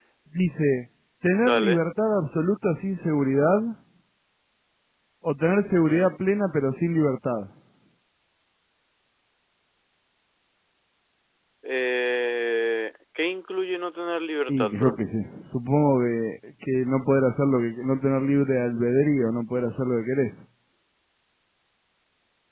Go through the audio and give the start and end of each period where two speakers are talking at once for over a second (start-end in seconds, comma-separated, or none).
none